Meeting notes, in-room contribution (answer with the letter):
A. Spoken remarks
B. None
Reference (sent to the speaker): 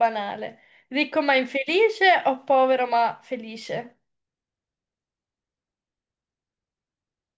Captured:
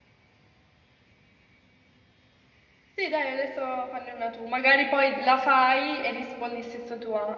A